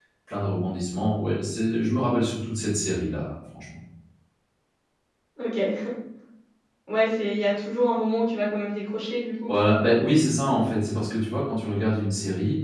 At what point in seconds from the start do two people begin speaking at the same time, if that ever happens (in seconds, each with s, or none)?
none